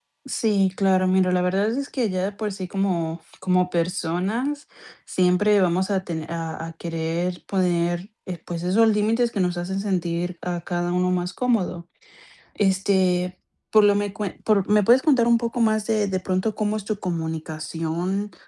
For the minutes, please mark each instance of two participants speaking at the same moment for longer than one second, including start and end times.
none

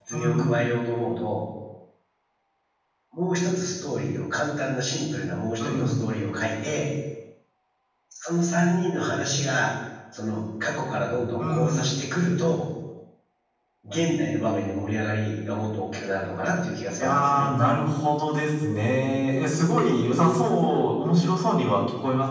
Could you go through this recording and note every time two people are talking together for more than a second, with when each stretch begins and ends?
none

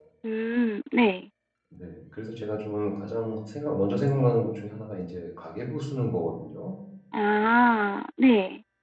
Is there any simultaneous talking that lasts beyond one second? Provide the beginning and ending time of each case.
none

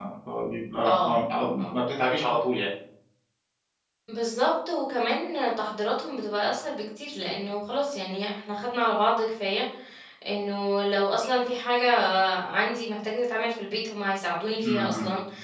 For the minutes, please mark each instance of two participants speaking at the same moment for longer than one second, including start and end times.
none

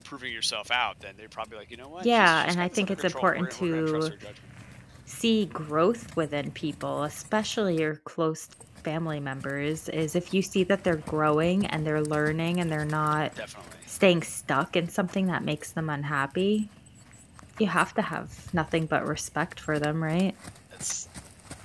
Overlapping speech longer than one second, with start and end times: 2.0-4.1

